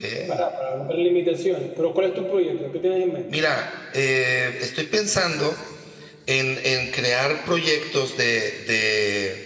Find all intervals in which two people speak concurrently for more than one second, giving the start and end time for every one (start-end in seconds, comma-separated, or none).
none